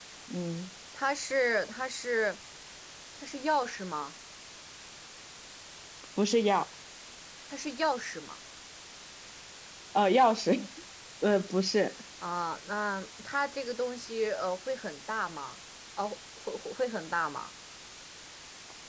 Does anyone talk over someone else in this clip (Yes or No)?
No